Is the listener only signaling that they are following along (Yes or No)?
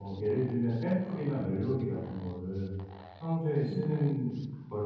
Yes